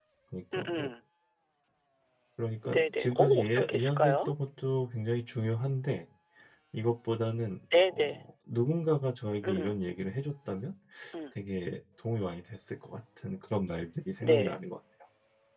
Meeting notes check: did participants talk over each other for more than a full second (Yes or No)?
Yes